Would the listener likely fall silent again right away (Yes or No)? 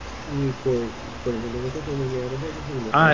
No